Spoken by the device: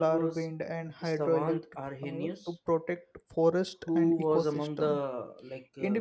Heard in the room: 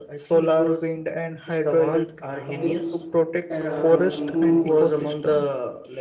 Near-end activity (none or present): present